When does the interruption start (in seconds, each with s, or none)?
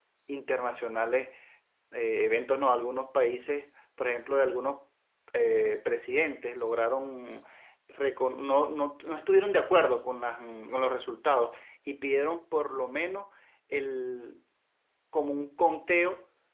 none